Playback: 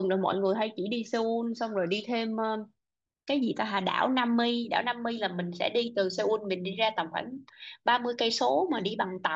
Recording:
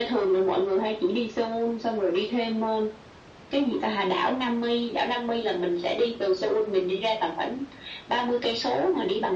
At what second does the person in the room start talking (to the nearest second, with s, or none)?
none